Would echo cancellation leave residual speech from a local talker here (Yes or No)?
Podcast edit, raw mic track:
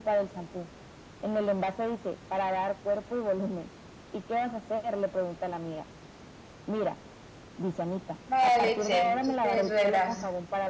Yes